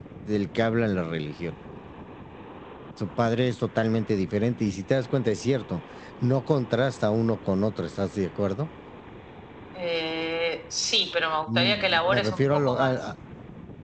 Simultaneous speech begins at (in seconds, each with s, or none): 11.5 s